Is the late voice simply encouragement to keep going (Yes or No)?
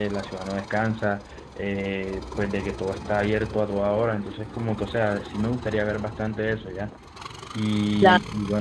Yes